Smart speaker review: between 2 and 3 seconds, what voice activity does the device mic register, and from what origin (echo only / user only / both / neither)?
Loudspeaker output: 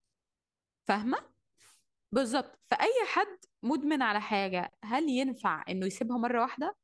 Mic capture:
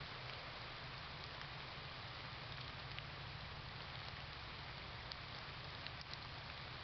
neither